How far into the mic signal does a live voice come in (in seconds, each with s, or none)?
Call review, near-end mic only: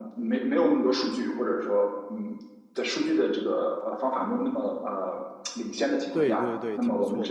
6.1 s